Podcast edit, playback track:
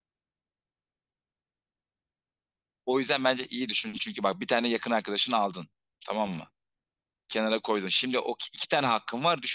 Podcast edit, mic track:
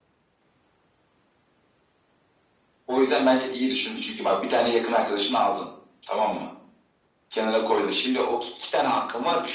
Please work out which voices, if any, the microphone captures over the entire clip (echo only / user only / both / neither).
echo only